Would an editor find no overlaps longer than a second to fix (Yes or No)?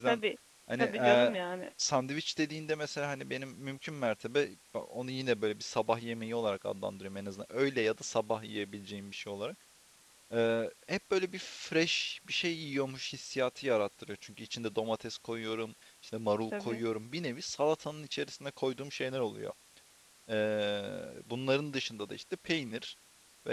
Yes